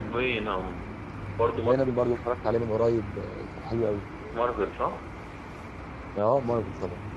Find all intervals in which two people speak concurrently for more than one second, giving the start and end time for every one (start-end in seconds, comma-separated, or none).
none